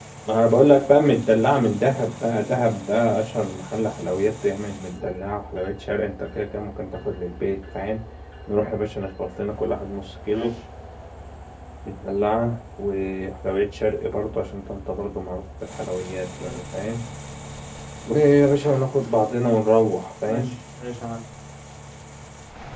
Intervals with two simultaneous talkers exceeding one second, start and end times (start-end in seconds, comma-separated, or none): none